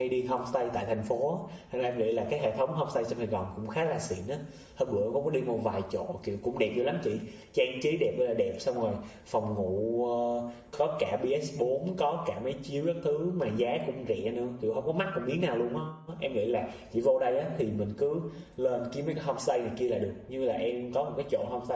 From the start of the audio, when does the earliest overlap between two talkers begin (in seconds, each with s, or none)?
none